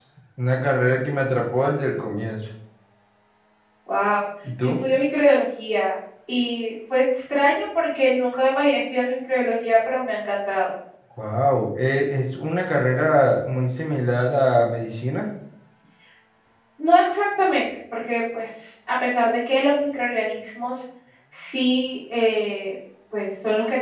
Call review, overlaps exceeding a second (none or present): none